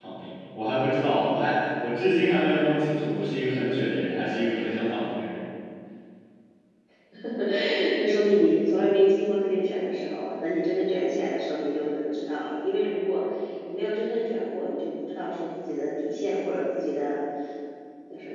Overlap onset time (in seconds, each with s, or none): none